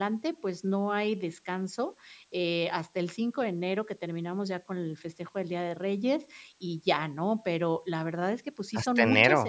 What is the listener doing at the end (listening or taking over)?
listening